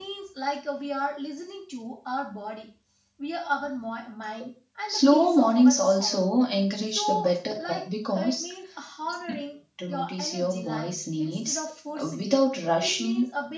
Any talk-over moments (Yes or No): Yes